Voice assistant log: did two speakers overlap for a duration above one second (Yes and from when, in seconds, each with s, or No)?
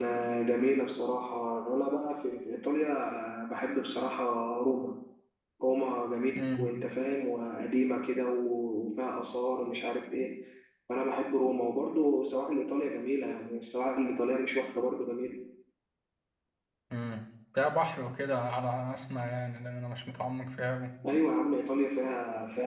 No